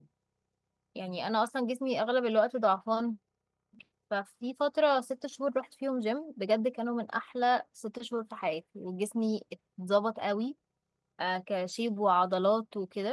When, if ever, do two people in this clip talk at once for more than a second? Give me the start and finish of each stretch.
none

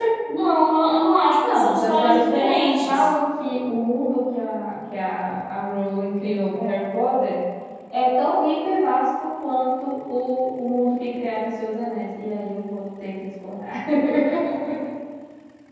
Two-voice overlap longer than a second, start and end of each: 1.5-3.1

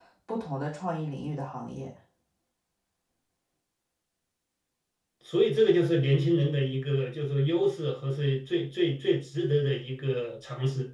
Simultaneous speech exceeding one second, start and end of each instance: none

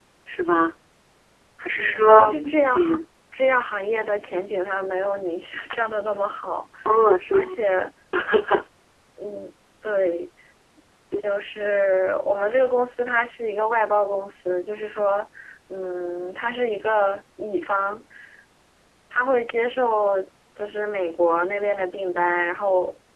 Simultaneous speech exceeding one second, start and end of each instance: 1.8-3.0

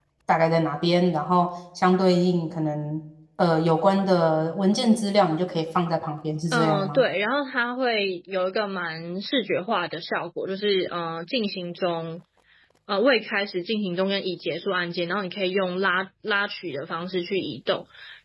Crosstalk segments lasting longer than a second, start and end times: none

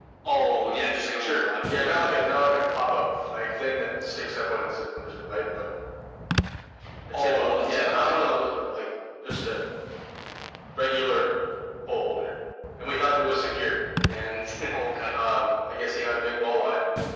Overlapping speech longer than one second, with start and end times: 1.2-2.5, 7.1-8.4

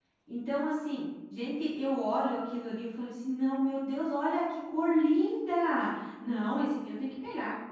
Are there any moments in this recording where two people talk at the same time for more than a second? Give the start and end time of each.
none

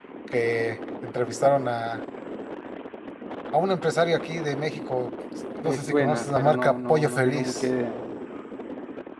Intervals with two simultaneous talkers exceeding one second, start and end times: 5.6-7.7

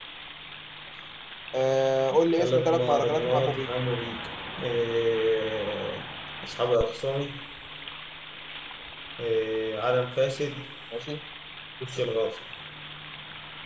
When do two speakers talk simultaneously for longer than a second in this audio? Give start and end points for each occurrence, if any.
2.4-3.7

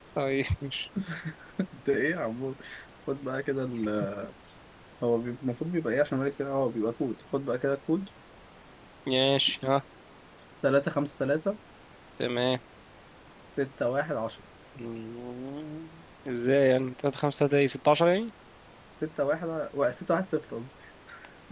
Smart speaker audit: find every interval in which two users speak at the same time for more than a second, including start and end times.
none

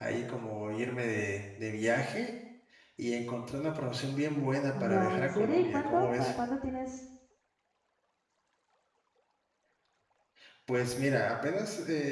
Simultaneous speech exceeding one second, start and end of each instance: 4.8-6.3

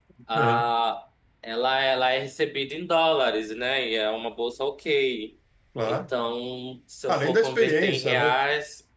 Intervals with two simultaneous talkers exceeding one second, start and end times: 7.1-8.4

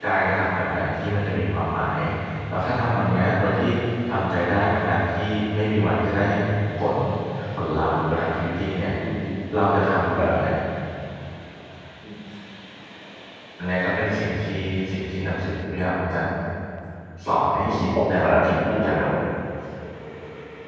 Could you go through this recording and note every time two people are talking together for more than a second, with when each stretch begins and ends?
17.6-19.1

